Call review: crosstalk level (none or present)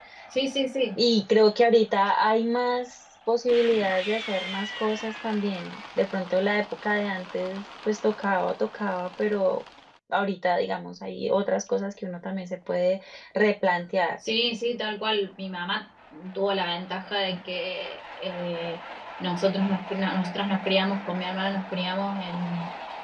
none